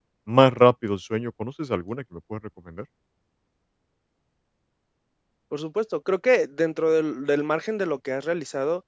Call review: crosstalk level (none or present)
none